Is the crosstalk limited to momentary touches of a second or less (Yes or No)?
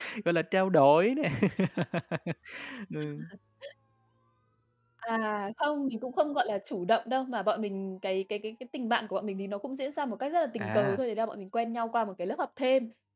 Yes